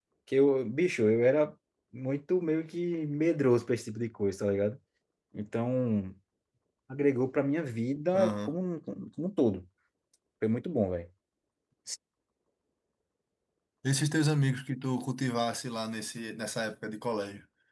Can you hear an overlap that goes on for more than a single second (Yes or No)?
No